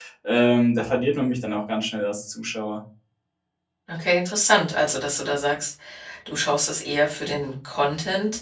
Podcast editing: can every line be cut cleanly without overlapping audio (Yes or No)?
Yes